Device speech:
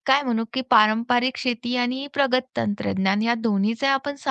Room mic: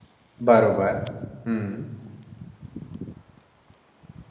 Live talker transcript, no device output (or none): बरोबर. हं,